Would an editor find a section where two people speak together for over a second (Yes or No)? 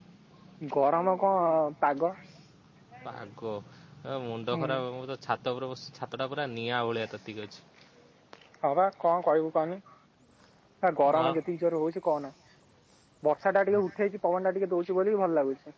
No